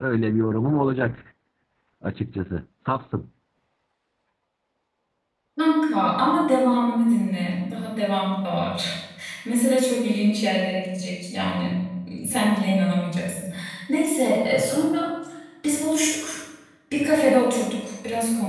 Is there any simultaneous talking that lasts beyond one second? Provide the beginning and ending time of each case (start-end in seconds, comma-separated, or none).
none